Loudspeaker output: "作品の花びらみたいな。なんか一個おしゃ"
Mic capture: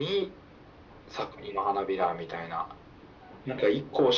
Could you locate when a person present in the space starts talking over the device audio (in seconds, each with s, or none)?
none